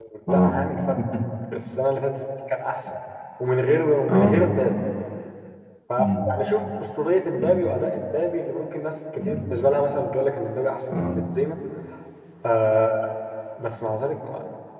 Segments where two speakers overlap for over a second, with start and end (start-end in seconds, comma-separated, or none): none